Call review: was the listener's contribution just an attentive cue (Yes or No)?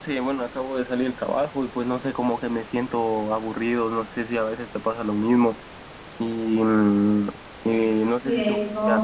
No